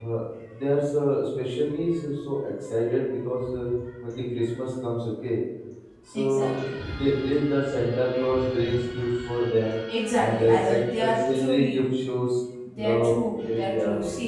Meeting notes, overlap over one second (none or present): present